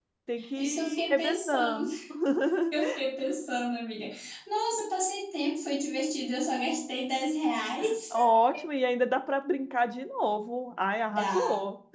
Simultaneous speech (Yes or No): Yes